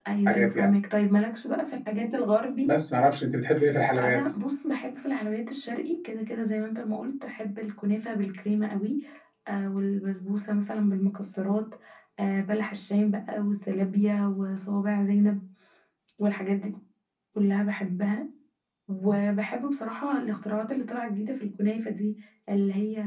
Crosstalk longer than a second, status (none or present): none